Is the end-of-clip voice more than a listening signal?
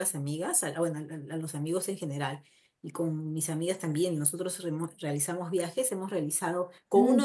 No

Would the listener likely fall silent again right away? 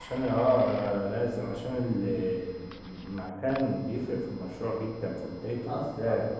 No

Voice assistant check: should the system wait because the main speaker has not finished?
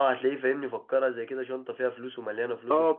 No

